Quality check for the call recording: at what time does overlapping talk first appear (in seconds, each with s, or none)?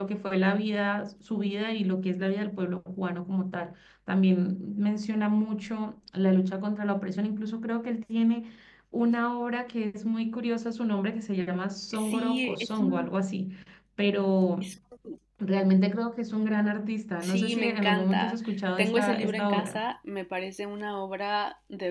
11.9 s